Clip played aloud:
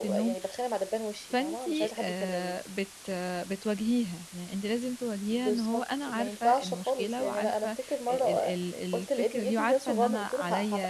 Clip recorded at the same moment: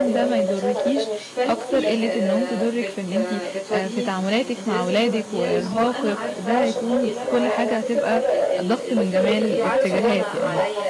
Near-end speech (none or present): present